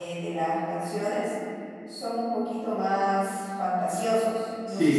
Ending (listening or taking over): taking over